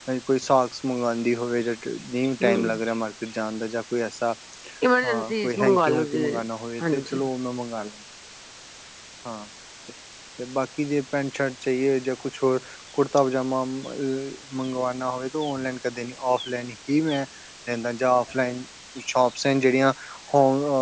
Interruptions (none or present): present